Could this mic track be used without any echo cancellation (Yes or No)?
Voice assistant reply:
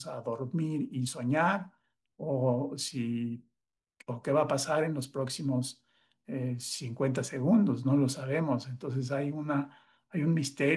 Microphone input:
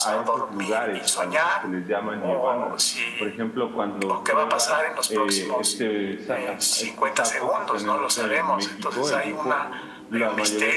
No